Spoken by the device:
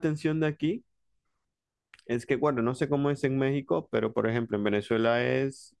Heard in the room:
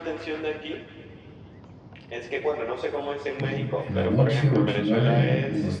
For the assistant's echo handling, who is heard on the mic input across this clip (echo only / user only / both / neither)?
both